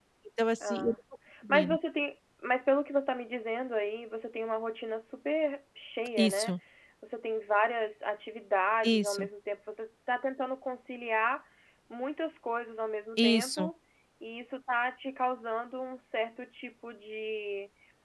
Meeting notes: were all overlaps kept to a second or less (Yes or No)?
Yes